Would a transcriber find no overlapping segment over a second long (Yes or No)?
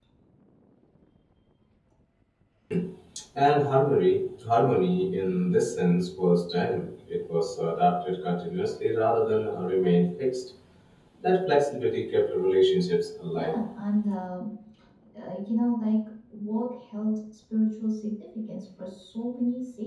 Yes